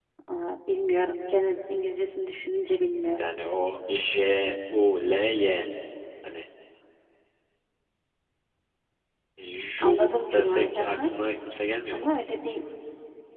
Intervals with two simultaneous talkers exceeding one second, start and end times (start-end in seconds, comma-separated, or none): 9.8-11.1